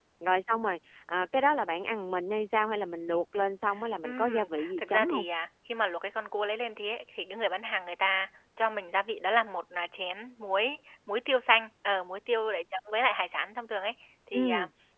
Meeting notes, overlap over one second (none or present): present